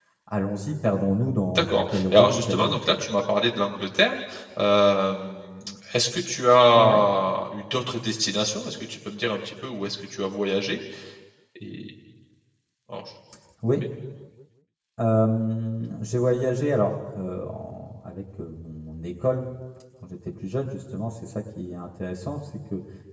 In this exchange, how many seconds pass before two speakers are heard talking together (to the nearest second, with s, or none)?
2 s